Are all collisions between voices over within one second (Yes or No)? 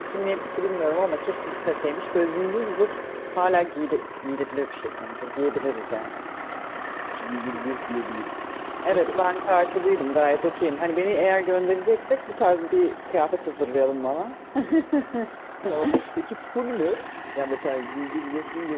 Yes